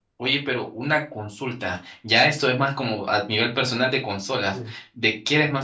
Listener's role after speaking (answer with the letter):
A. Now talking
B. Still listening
B